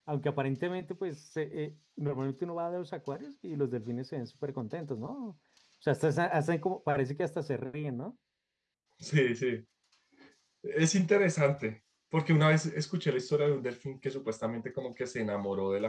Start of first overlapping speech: none

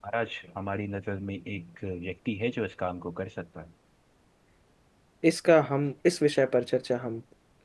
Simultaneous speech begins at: none

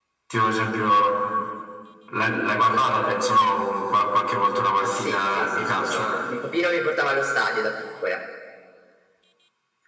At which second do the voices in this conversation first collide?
4.9 s

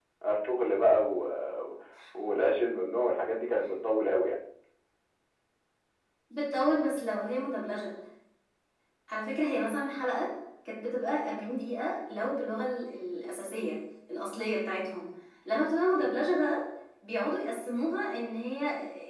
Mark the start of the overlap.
none

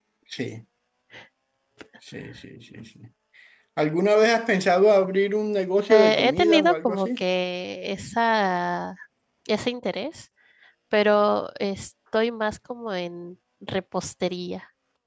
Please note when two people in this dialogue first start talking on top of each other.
5.9 s

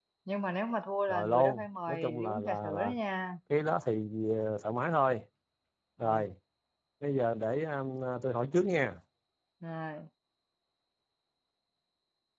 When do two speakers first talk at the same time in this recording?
1.1 s

